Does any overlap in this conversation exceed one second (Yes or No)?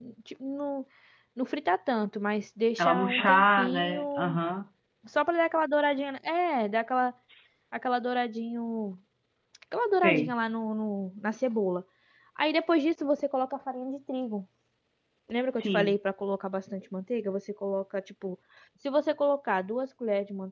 Yes